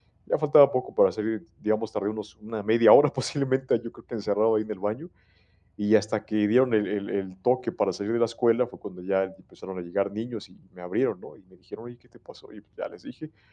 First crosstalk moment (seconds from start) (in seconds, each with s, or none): none